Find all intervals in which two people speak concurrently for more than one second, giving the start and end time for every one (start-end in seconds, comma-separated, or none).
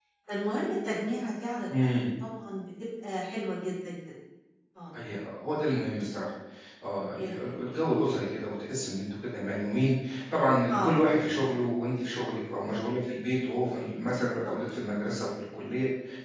none